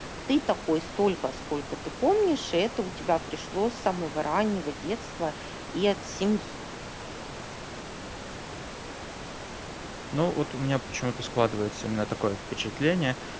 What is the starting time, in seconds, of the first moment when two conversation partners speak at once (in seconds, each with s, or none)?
none